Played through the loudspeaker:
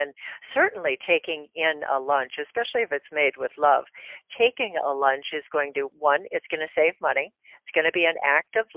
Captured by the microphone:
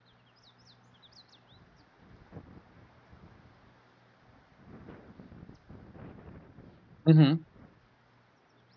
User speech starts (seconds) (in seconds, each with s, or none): 7.1 s